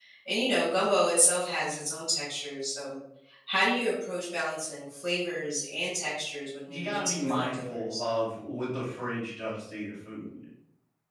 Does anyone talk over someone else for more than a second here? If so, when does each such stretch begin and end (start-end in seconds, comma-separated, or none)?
6.6-8.0